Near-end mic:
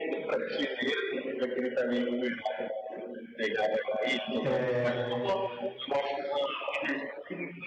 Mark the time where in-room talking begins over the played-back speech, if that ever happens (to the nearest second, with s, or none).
4 s